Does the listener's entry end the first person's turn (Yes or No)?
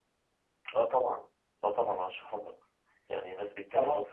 No